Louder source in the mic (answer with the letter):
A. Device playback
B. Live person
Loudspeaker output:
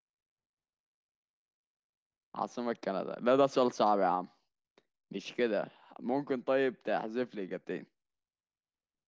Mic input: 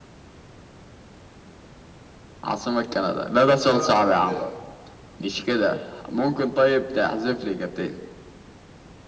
A